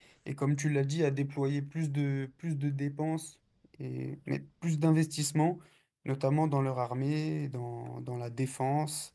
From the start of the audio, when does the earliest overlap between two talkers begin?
none

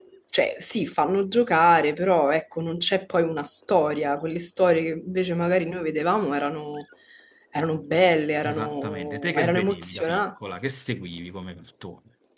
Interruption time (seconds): 8.4 s

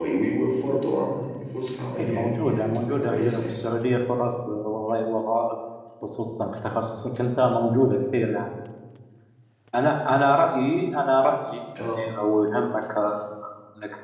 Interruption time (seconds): 2.0 s

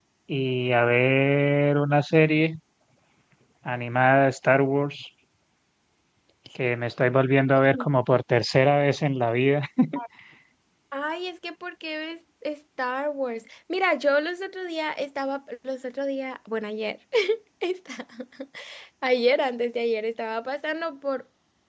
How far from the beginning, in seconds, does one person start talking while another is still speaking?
none

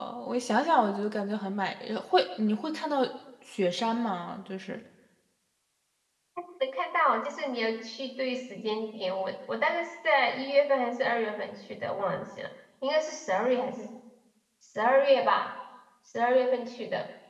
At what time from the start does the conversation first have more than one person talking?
none

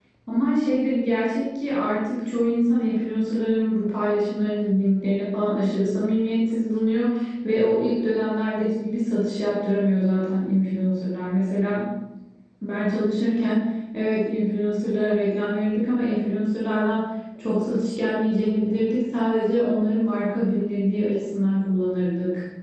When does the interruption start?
none

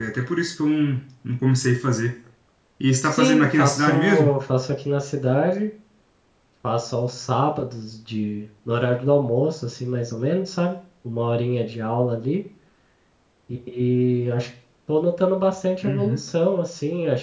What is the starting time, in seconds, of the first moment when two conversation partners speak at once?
3.0 s

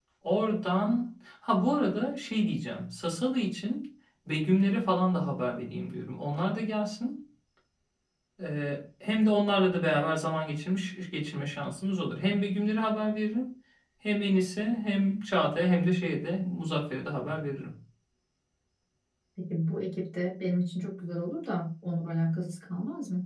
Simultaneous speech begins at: none

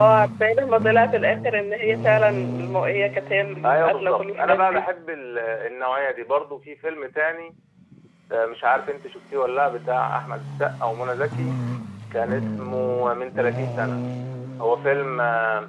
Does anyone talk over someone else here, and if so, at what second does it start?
3.6 s

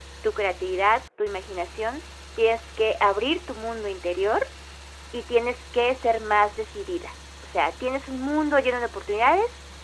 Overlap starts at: none

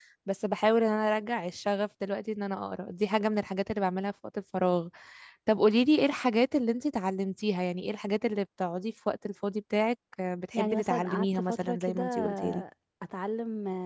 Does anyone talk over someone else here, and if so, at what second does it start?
10.5 s

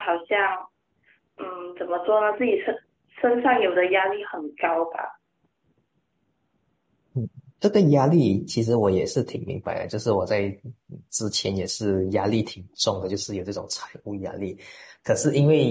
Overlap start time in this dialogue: none

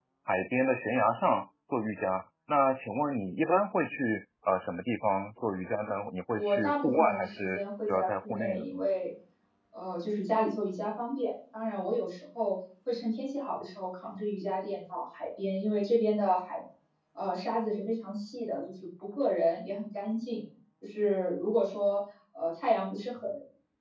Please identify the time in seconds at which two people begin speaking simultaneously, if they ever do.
6.3 s

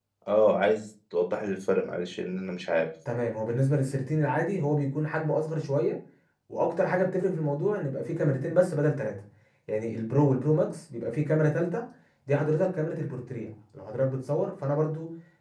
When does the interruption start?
none

